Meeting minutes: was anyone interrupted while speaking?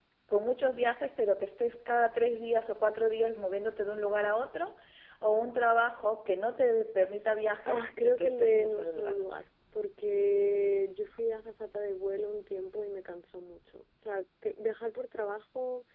Yes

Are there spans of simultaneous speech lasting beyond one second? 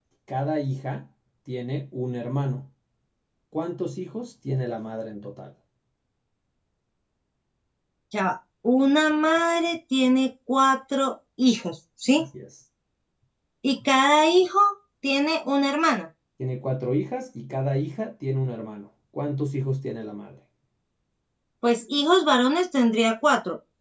No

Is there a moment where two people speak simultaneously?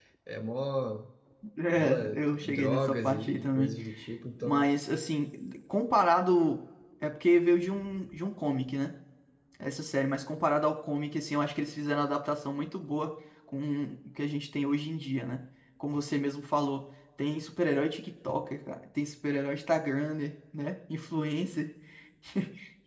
Yes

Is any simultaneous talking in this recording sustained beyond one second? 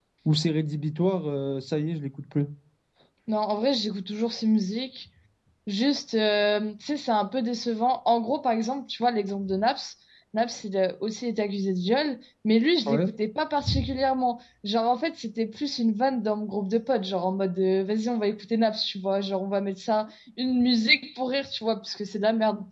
No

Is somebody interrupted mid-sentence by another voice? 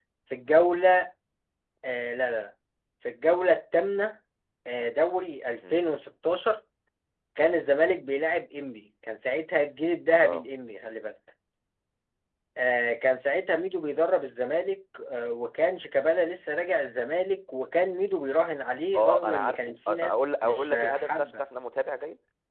Yes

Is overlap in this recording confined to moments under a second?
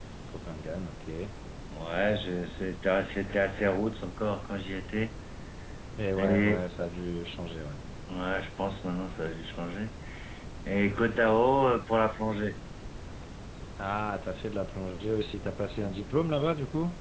Yes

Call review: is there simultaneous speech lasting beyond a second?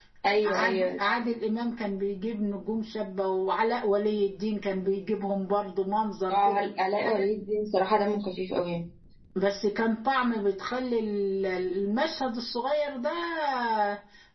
No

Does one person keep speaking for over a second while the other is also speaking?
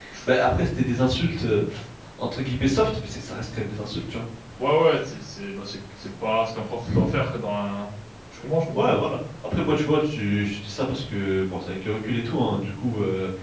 No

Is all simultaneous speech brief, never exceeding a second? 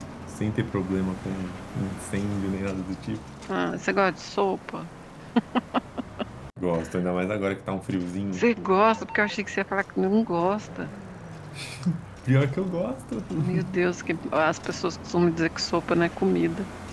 Yes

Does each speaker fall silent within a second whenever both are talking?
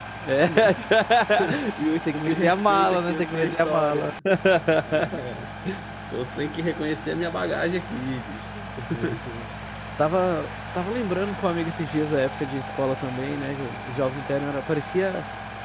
No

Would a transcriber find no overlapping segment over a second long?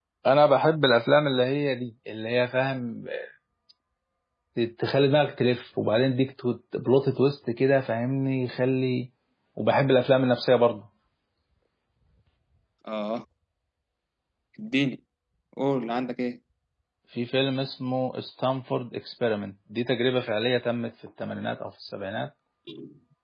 Yes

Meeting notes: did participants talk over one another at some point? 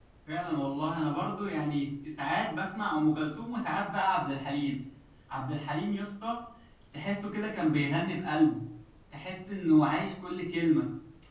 No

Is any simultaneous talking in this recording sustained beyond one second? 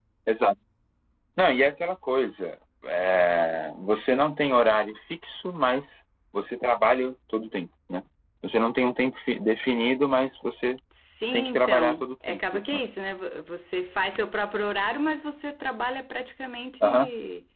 Yes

